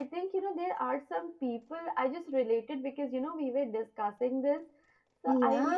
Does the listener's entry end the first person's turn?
No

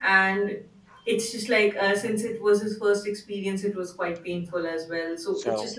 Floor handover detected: No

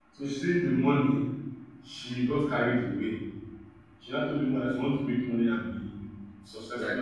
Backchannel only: Yes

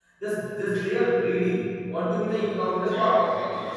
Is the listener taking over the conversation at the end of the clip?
Yes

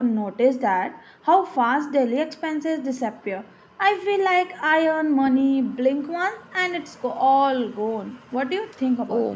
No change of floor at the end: No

